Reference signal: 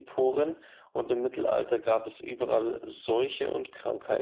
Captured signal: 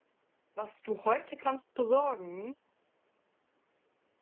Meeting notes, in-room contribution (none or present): present